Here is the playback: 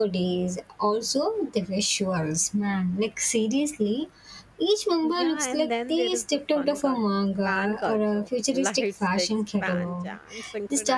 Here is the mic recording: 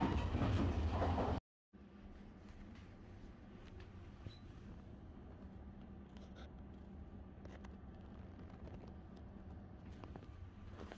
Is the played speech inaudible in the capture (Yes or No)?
Yes